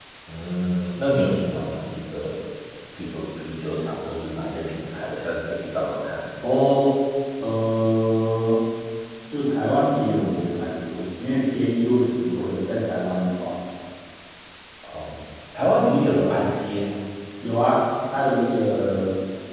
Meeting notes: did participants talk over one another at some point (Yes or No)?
No